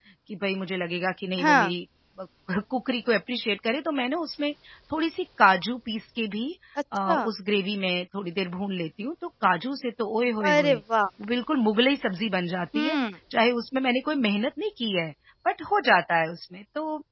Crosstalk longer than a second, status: none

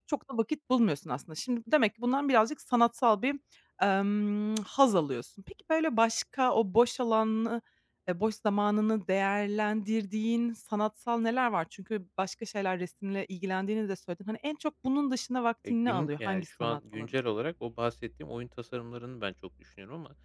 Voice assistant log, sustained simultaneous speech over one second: present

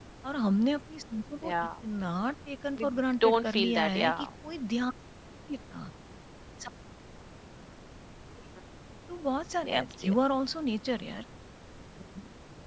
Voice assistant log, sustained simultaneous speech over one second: present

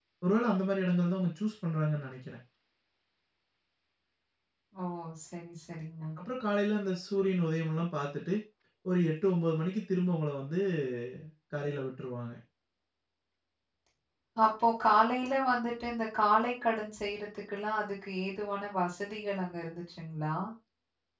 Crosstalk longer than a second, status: none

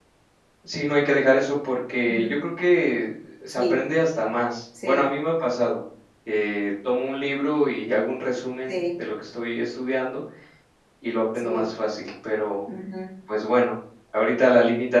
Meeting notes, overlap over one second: none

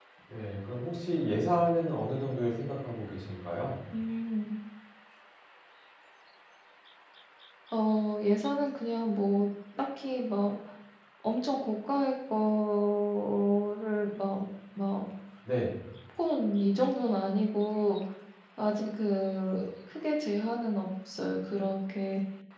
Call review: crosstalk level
none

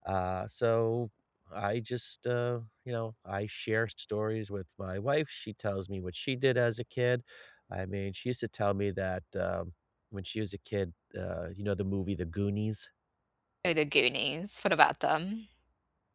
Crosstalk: none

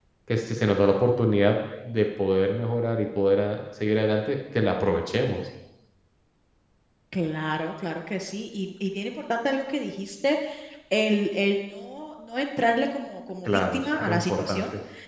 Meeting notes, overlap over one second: present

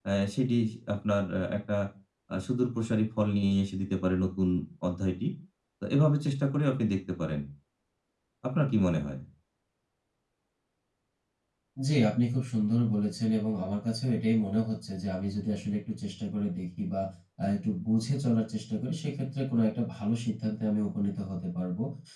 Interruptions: none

